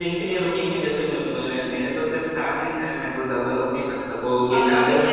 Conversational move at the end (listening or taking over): taking over